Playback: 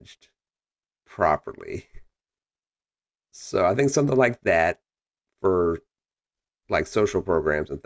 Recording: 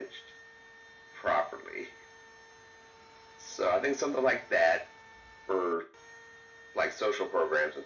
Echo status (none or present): present